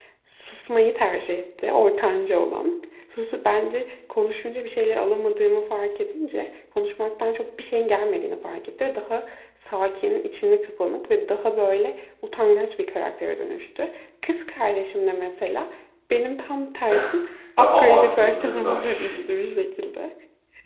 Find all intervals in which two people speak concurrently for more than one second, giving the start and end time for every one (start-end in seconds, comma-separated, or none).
17.6-19.2